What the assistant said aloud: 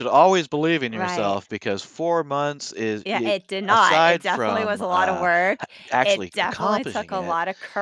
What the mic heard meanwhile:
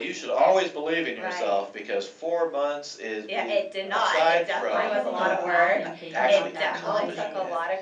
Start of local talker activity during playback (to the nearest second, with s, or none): 5 s